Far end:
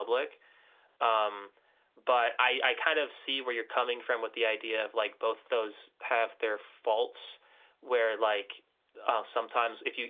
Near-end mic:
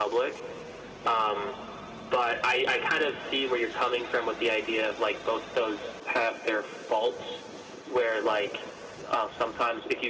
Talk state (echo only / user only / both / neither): echo only